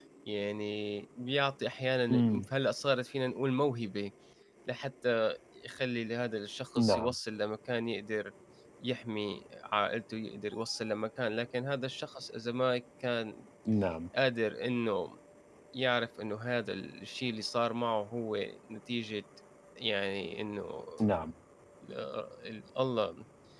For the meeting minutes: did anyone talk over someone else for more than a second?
No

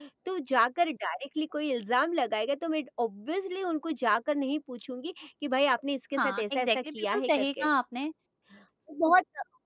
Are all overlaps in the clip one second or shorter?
No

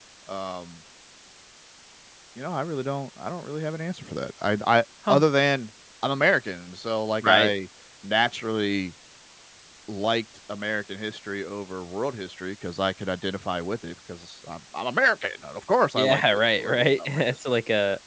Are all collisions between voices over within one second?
No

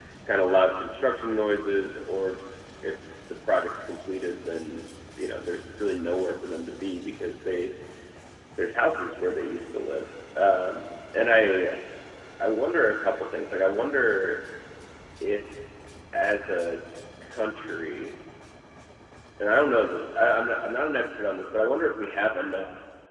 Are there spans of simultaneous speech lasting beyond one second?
No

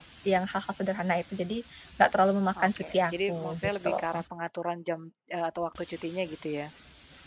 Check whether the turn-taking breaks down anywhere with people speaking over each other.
Yes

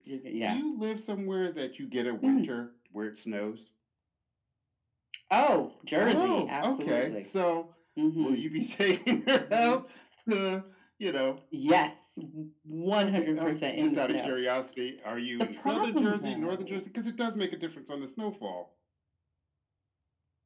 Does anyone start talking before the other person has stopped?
Yes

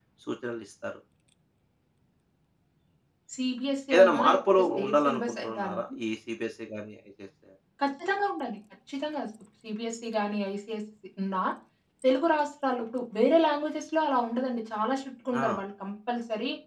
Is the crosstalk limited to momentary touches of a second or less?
No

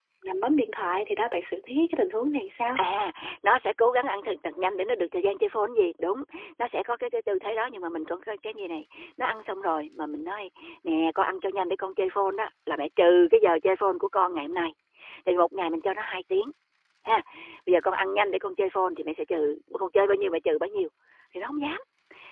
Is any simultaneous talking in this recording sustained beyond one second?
No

